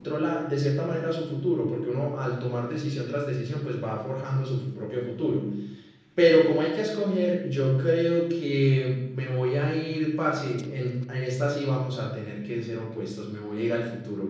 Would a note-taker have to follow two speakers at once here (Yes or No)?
No